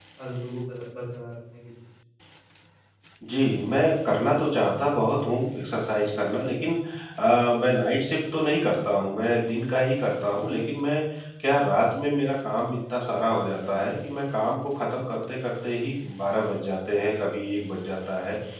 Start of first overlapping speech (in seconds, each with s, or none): none